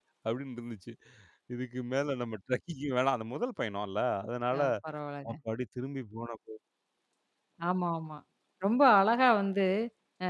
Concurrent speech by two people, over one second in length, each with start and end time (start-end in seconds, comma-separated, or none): none